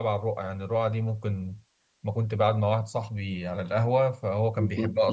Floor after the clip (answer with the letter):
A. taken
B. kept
B